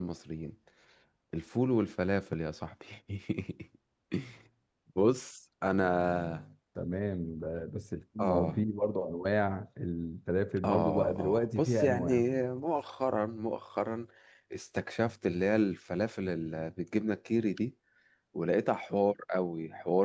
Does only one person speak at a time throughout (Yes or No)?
No